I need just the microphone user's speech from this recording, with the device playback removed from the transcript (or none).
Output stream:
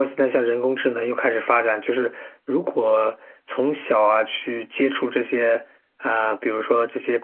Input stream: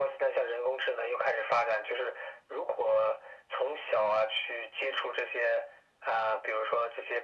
none